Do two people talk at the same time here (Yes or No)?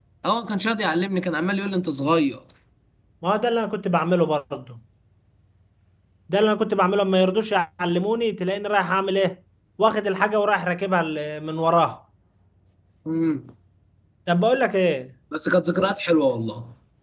No